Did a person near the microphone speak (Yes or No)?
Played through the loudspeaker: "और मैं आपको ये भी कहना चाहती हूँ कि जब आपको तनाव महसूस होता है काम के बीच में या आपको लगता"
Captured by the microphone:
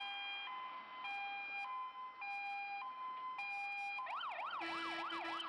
No